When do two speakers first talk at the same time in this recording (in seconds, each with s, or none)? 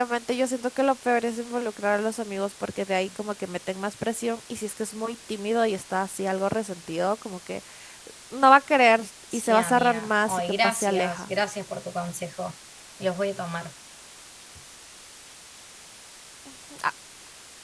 9.3 s